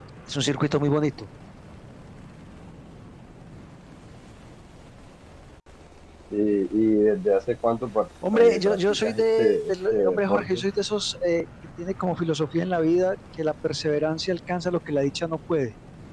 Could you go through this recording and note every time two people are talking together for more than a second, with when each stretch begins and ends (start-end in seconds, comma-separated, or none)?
8.3-10.6